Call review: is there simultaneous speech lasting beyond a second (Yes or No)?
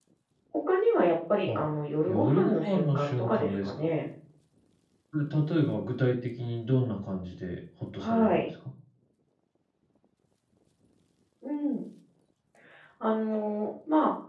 Yes